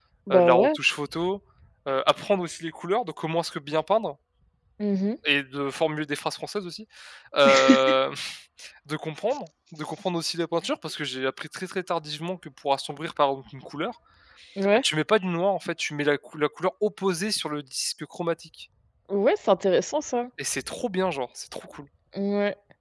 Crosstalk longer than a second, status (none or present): none